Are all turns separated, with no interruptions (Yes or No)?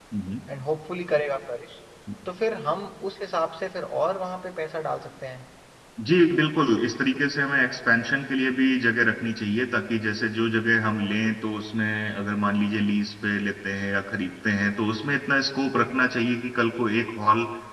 Yes